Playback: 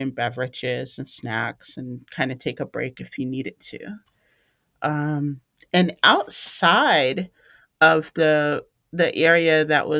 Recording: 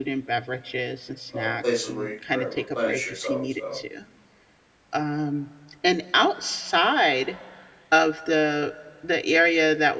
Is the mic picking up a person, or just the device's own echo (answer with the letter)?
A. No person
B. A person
B